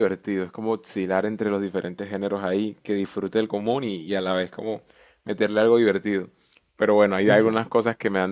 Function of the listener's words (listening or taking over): listening